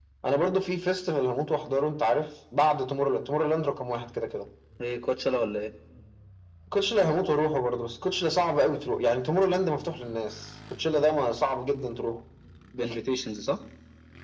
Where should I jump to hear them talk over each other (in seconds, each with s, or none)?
none